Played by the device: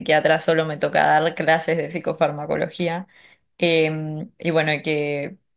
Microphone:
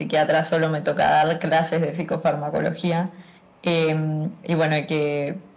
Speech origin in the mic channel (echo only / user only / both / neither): echo only